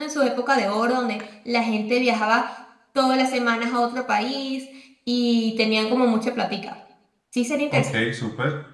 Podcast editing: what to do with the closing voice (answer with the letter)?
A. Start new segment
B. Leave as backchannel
A